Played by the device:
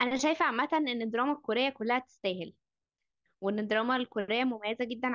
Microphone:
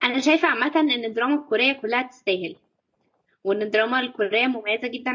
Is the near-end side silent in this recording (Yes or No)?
Yes